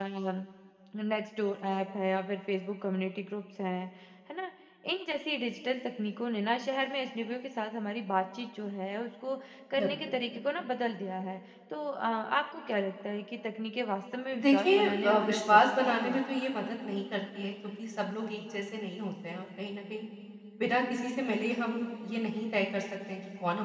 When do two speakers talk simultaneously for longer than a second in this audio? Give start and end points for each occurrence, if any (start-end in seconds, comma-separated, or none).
14.4-16.2